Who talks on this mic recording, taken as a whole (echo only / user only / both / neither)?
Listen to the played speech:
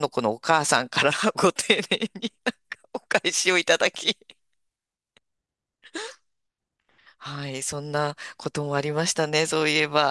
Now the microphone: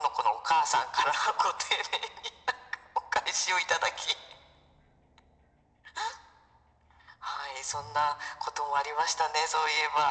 echo only